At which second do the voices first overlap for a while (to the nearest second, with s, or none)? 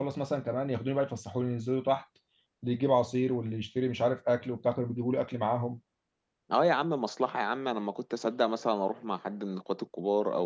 none